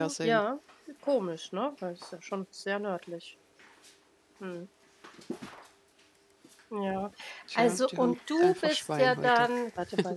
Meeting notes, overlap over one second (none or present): present